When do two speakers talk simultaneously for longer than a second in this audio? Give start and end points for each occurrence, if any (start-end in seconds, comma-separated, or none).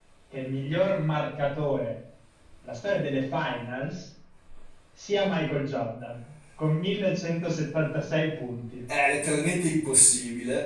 none